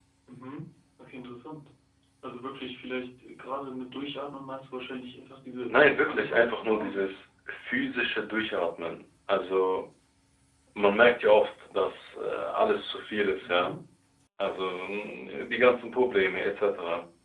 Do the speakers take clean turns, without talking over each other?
No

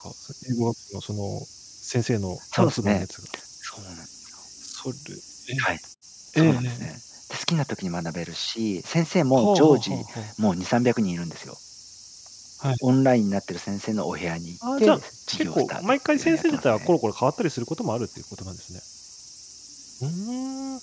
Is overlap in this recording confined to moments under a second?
No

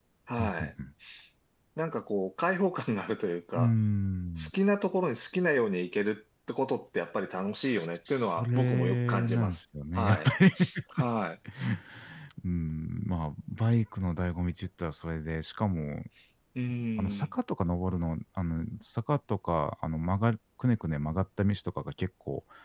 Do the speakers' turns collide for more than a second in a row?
Yes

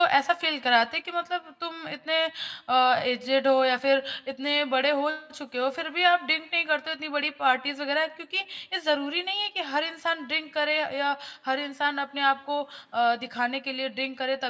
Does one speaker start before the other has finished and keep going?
No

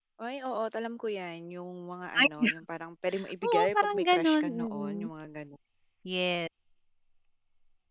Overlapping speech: Yes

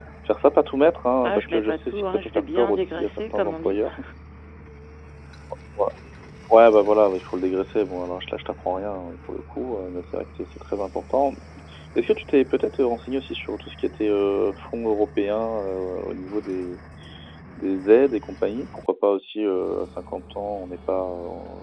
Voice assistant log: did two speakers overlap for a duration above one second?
Yes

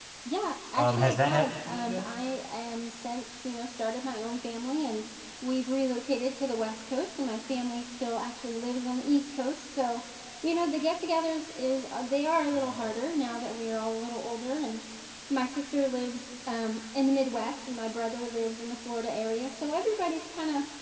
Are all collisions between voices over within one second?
No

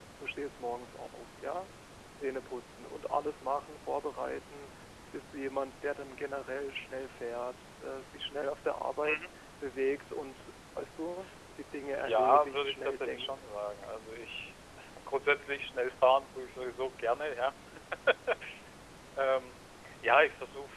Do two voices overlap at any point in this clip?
Yes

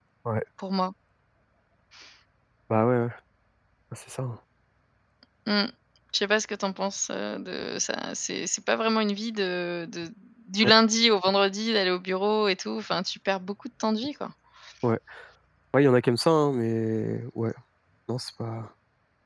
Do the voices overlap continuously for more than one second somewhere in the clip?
No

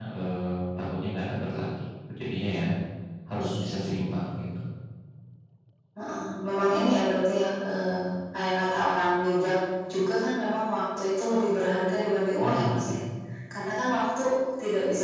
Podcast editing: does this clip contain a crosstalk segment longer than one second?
No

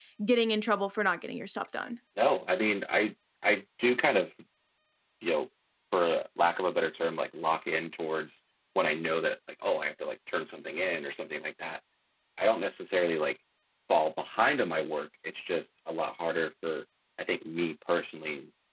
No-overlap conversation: Yes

